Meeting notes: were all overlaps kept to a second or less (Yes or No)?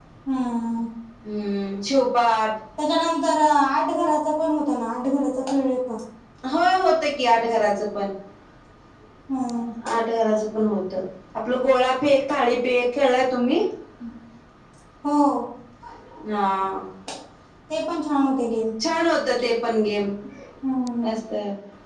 Yes